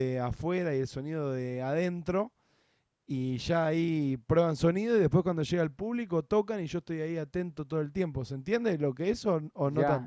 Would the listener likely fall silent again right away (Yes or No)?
No